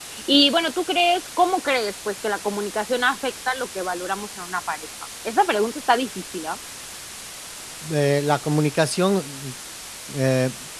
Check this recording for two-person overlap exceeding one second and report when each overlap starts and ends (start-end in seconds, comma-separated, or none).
none